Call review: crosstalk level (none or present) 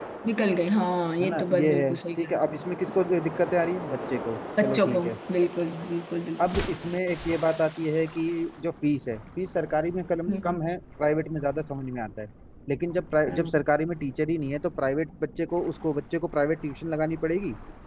present